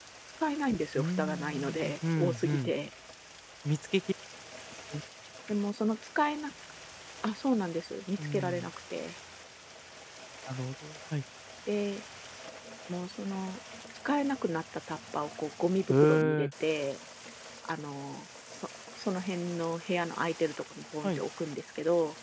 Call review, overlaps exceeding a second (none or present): present